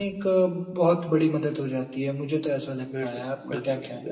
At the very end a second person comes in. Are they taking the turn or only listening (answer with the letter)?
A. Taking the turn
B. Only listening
A